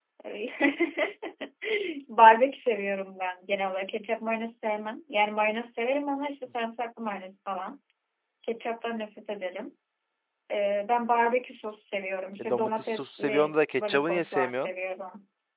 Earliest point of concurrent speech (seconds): 12.4 s

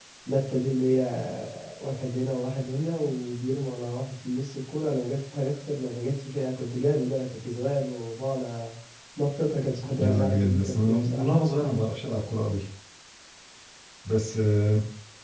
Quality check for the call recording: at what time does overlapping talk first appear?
10.0 s

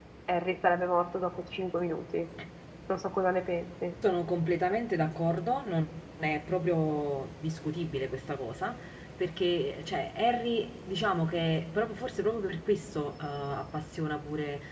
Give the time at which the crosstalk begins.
none

